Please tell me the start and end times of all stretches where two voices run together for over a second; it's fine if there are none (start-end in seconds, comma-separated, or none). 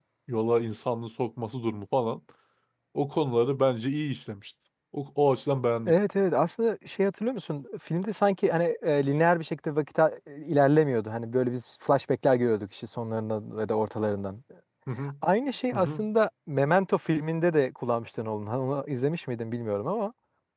none